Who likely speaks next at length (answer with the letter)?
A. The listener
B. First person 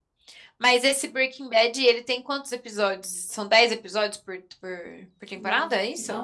A